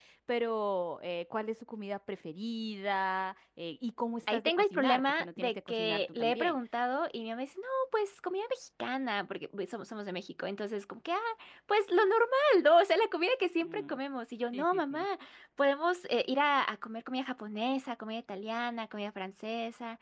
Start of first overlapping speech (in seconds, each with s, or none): 4.3 s